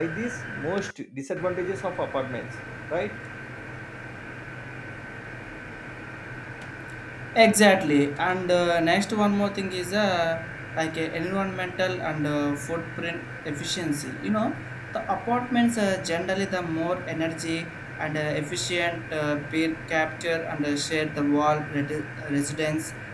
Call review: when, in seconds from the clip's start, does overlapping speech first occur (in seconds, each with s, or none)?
none